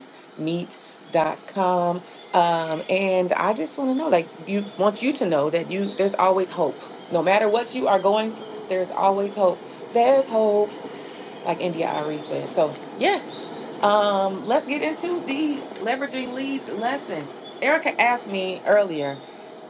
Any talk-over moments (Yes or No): No